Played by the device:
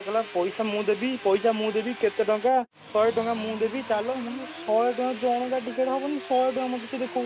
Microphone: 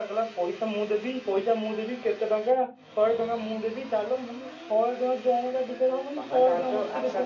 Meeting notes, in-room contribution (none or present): present